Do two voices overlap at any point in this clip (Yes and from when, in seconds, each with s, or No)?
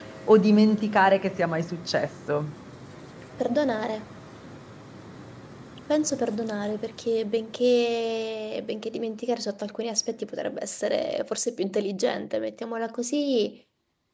No